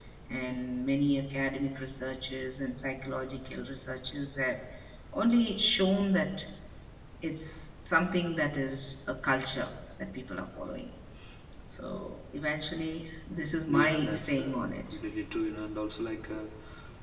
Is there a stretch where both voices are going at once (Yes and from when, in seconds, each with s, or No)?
Yes, from 13.7 s